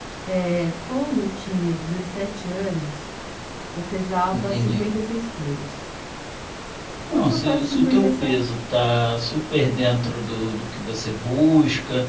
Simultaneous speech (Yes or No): Yes